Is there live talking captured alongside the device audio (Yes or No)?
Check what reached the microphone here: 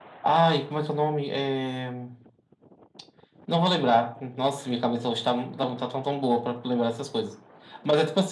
No